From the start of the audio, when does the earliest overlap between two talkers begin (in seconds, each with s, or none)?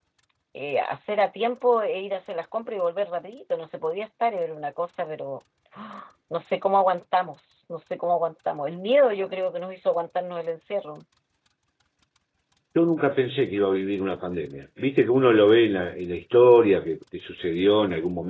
none